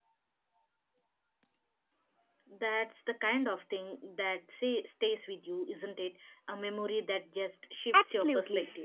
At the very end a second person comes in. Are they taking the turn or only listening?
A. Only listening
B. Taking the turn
B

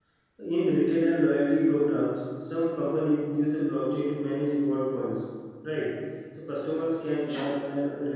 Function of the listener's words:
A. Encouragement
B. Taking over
A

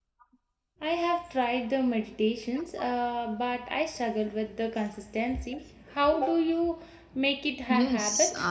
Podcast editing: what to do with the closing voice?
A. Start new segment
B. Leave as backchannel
A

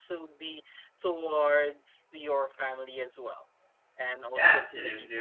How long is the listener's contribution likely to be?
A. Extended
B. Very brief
A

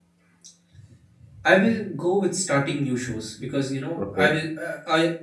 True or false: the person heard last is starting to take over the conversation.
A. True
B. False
B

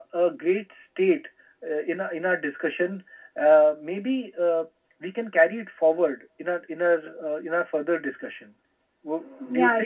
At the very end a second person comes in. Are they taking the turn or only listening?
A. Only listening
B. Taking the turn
B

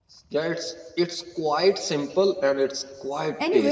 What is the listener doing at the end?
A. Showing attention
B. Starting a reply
B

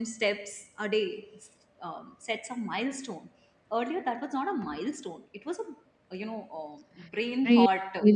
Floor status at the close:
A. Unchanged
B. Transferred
B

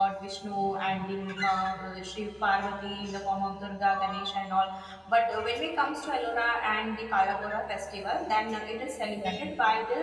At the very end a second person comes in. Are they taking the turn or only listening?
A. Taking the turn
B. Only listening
B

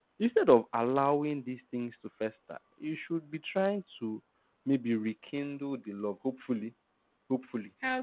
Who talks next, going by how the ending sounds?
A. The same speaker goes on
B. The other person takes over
A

